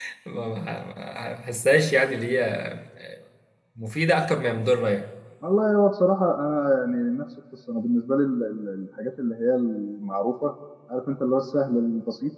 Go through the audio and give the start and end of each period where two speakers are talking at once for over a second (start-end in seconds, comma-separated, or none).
none